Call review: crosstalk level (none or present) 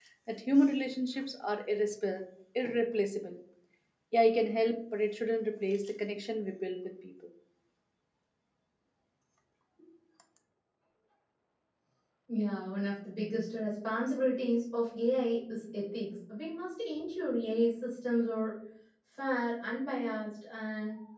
none